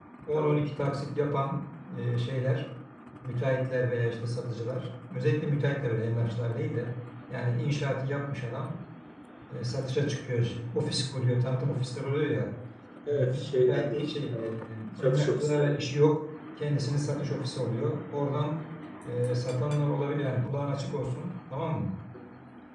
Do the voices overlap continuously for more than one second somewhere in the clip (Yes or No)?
Yes